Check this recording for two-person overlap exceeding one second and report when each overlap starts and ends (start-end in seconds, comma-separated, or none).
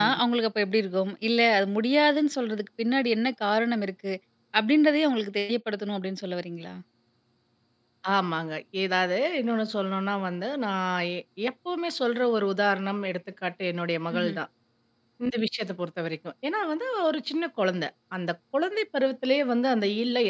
none